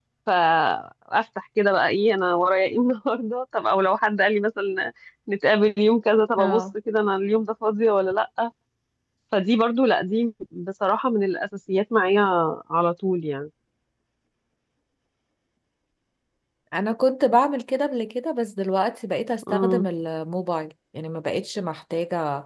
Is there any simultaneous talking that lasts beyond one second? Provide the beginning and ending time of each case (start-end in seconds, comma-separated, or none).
none